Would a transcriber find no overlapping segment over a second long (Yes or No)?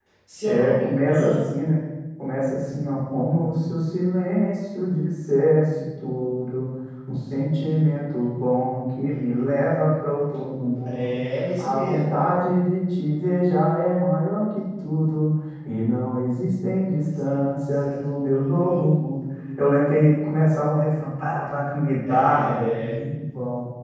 No